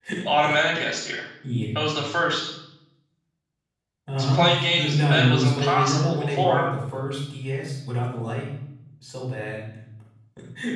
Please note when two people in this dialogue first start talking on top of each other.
4.2 s

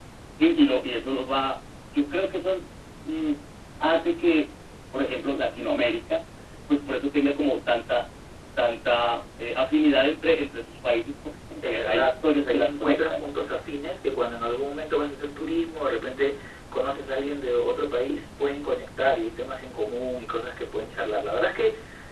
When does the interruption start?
11.6 s

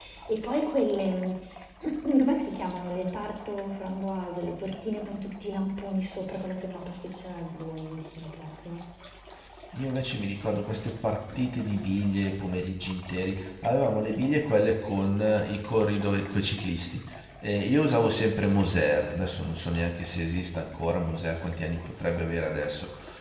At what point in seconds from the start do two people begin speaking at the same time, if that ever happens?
none

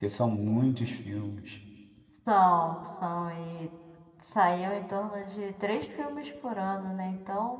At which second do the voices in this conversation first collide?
none

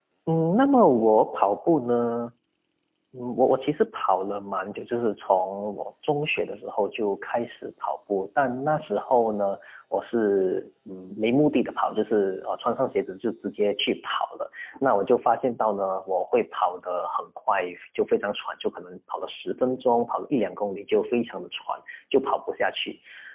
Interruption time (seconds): none

